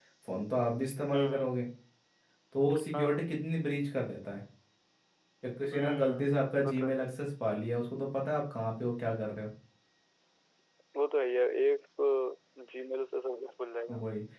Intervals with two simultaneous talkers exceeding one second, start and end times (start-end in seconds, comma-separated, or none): none